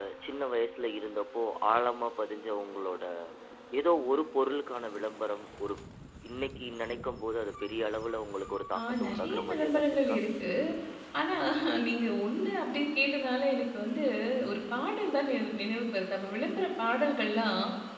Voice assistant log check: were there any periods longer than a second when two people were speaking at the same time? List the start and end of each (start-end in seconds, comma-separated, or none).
8.8-10.2